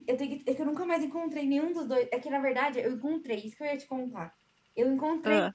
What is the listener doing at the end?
listening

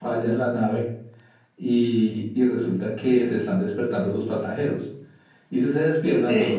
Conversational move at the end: listening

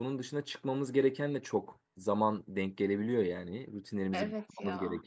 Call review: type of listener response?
listening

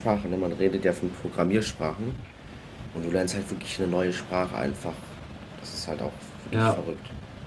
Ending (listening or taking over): taking over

